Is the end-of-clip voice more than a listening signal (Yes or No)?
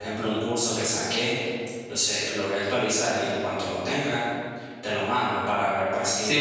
Yes